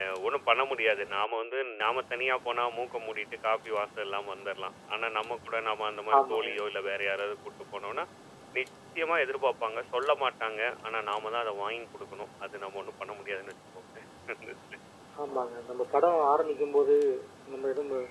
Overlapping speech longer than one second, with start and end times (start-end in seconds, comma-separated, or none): none